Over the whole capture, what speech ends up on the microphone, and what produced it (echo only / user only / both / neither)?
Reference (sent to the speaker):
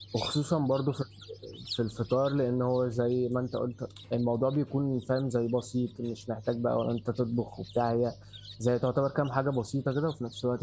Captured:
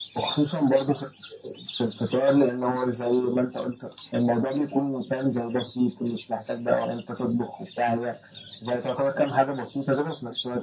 echo only